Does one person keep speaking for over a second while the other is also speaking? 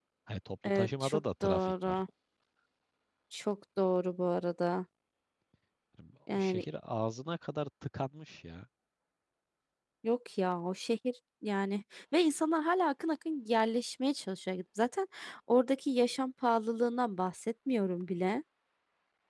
Yes, from 0.6 s

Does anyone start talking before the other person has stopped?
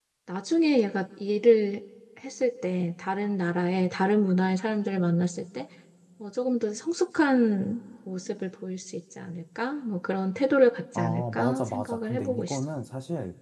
Yes, from 10.9 s

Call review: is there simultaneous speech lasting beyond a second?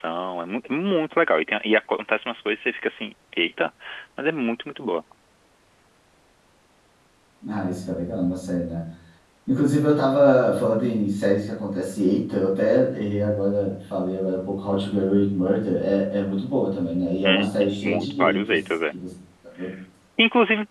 Yes, from 17.2 s

